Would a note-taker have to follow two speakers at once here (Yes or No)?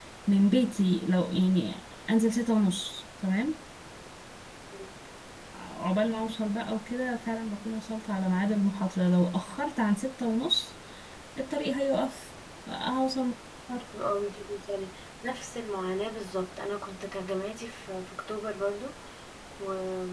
No